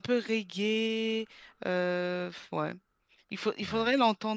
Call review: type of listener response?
listening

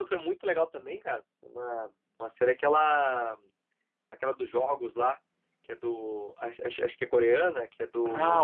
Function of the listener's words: taking over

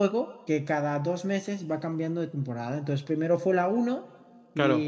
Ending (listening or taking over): listening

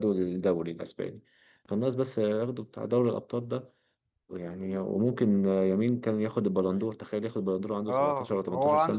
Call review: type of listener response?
taking over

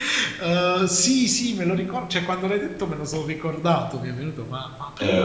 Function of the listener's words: taking over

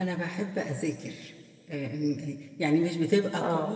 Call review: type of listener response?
listening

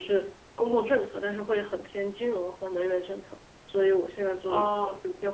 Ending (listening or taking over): listening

